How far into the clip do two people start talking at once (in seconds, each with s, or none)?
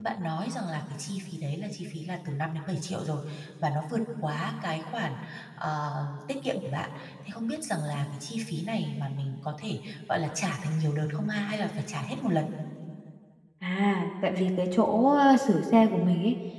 none